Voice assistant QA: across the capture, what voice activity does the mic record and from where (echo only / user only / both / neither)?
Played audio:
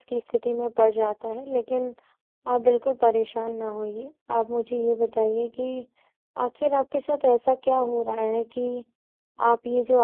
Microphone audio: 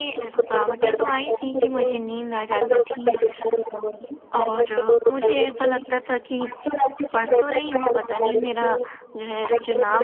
both